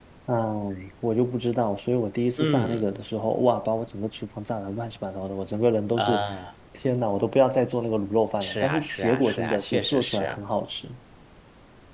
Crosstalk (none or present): present